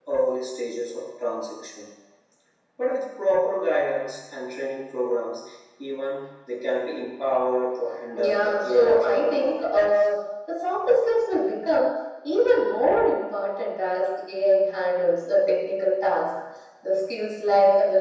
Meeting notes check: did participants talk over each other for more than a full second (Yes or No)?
Yes